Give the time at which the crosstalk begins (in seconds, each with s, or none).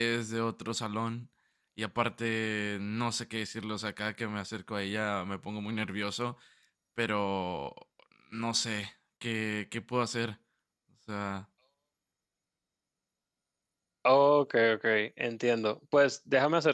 none